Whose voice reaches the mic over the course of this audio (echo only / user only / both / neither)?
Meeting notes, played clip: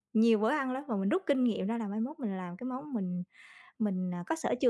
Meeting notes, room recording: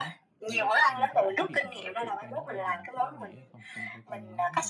both